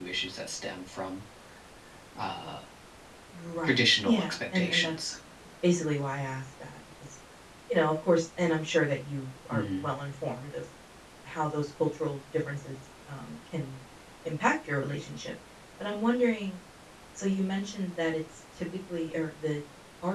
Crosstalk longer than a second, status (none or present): present